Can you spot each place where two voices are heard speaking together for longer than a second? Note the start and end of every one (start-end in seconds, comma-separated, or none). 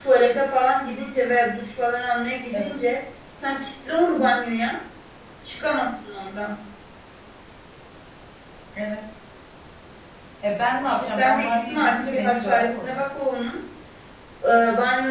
10.8-13.0